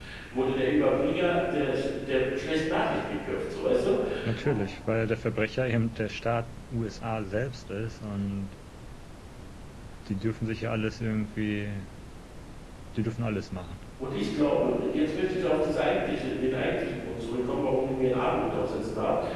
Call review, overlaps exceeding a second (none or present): none